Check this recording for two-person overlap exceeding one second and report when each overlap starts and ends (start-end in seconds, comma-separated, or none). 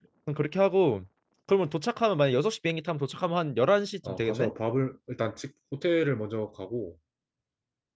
none